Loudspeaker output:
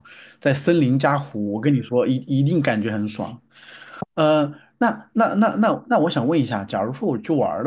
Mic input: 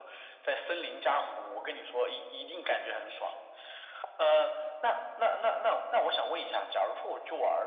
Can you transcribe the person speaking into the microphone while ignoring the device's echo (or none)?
none